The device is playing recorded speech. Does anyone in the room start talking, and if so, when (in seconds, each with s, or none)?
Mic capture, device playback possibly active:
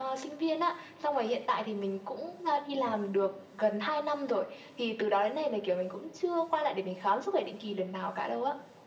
none